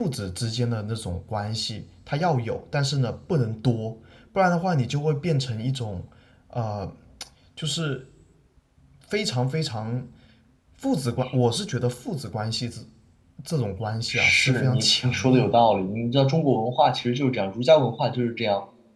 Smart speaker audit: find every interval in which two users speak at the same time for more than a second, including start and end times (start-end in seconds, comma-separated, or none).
14.1-15.6